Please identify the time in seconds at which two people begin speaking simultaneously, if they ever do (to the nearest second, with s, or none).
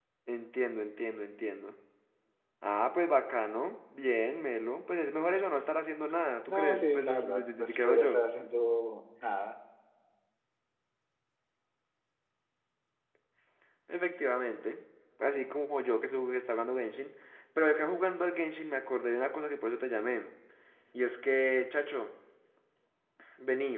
6 s